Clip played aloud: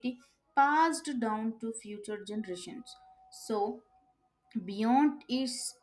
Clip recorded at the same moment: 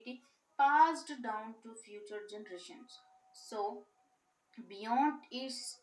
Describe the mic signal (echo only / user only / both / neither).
echo only